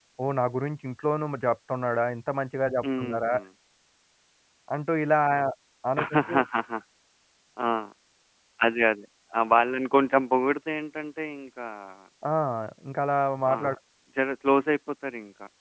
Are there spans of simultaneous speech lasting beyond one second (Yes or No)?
No